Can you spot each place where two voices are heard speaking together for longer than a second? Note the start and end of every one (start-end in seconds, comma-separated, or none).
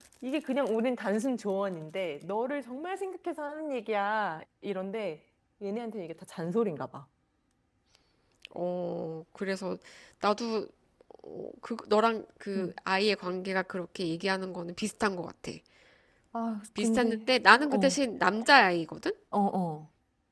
none